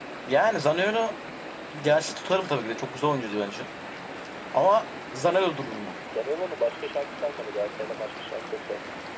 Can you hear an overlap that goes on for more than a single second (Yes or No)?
No